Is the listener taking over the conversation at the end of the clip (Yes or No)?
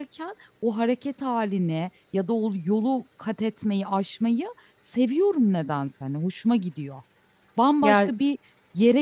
No